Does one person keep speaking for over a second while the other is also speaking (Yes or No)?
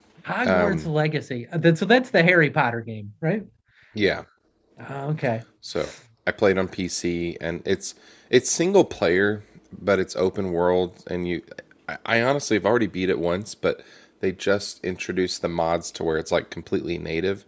No